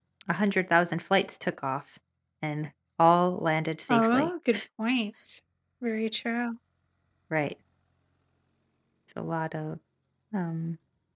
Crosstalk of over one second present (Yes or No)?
No